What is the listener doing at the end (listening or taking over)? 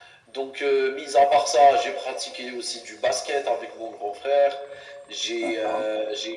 listening